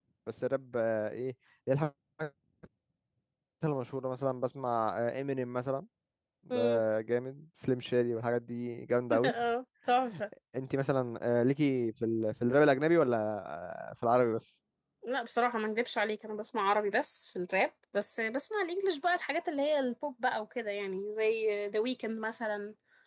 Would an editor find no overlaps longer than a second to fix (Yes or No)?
Yes